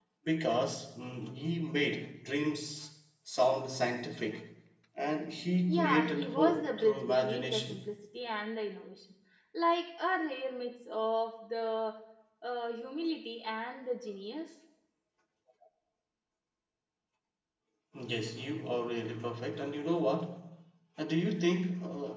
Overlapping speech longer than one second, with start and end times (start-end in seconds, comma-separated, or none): 5.7-7.8